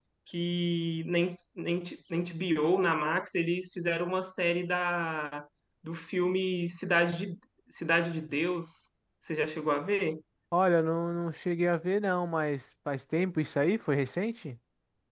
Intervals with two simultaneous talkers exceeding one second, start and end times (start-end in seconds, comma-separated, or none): none